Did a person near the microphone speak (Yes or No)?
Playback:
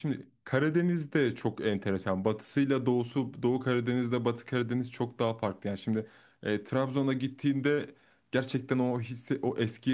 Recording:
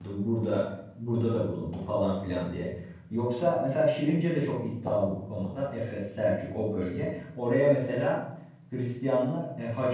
Yes